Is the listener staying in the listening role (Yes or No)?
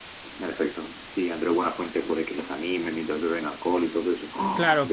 No